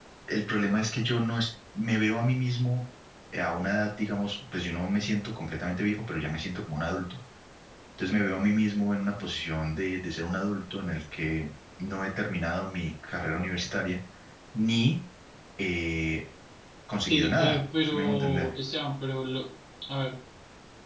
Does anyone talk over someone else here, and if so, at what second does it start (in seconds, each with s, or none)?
17.1 s